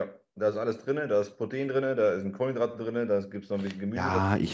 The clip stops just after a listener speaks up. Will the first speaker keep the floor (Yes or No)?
No